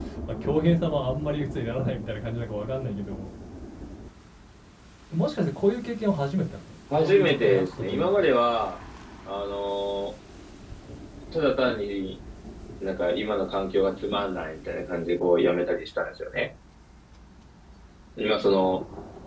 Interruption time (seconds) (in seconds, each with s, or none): 6.9 s